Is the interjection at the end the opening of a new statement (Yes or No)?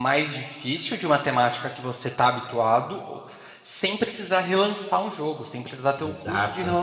No